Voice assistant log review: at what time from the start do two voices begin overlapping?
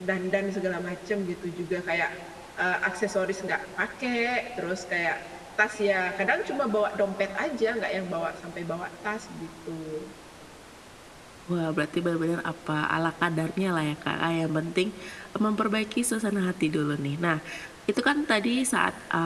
none

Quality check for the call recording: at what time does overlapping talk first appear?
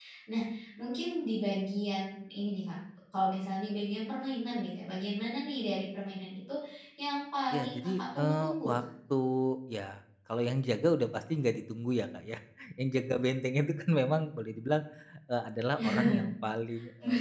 7.5 s

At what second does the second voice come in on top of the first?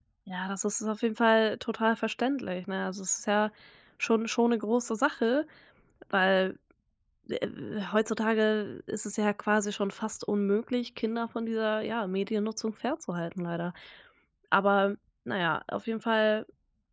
none

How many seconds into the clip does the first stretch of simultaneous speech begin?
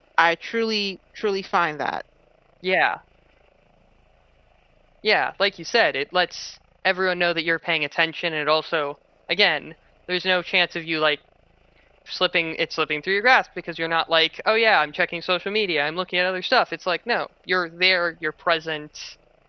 none

